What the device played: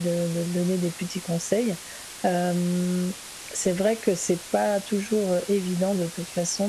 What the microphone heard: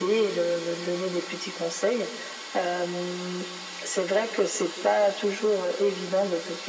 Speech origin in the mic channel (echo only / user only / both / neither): echo only